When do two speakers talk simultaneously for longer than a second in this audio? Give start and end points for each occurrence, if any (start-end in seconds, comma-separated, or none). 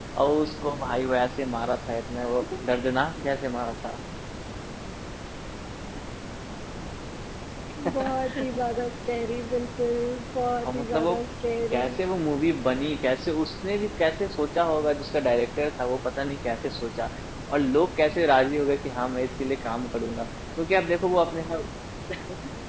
none